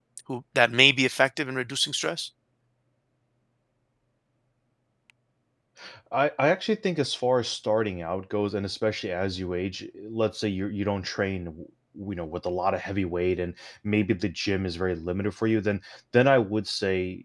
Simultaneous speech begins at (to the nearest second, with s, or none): none